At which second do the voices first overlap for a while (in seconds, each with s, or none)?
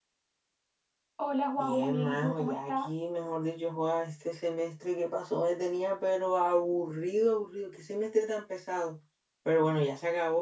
1.6 s